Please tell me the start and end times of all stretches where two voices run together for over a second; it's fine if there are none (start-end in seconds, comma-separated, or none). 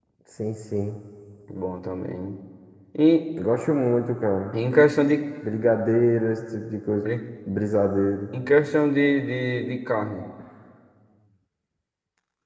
none